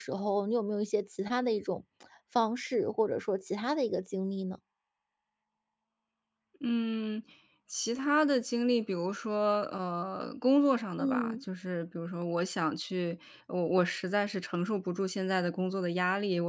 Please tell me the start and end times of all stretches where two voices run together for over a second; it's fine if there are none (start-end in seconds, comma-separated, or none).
none